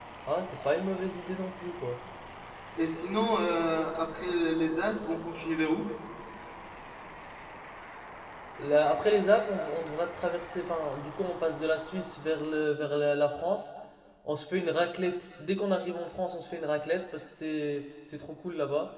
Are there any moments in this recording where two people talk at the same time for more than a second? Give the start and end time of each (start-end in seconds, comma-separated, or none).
none